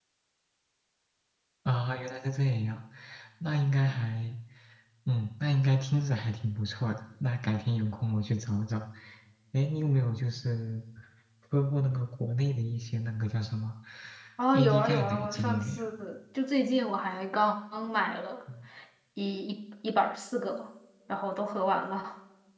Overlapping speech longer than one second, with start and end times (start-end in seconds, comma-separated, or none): 14.5-15.8